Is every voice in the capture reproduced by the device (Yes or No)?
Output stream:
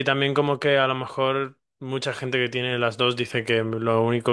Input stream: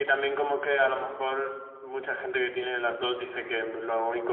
Yes